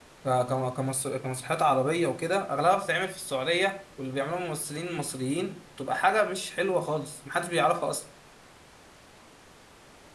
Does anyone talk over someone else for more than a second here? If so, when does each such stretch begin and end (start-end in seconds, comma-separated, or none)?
none